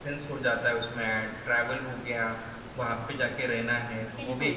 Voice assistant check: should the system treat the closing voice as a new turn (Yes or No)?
No